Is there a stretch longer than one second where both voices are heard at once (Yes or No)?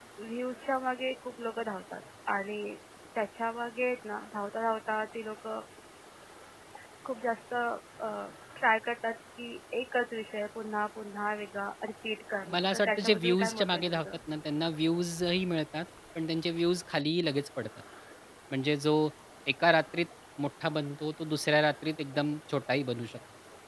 Yes